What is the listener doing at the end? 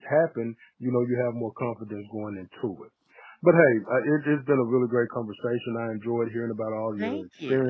listening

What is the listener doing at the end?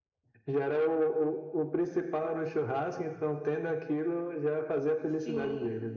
taking over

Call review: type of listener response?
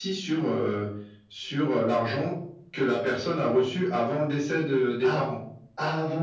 taking over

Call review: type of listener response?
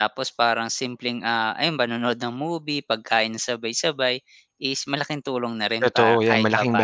taking over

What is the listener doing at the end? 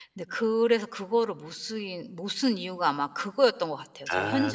taking over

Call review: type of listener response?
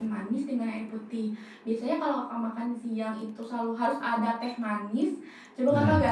listening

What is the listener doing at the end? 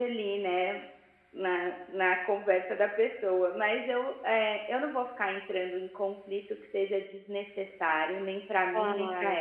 taking over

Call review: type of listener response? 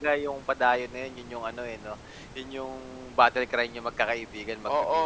taking over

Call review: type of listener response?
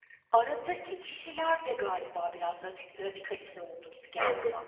taking over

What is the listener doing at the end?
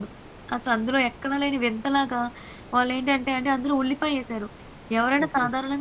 listening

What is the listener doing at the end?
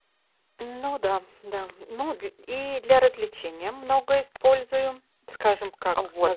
taking over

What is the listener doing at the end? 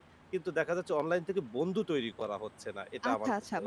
taking over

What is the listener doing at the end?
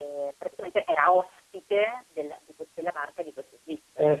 taking over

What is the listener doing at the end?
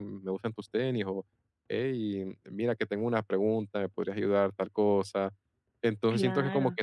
listening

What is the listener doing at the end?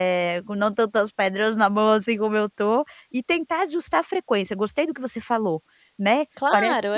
taking over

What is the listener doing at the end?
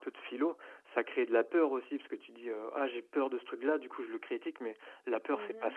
listening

